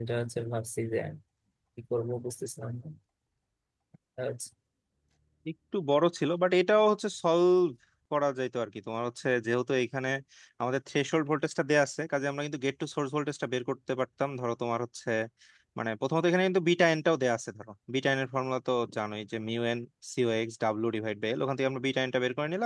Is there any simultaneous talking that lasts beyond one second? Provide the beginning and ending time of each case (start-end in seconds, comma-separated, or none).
none